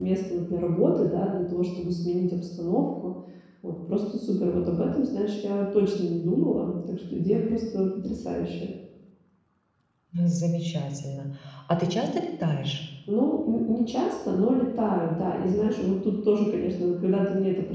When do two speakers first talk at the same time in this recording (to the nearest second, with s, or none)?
none